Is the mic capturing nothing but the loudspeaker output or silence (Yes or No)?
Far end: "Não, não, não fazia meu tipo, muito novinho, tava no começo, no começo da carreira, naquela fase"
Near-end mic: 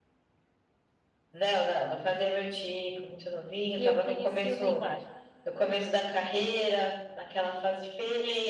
No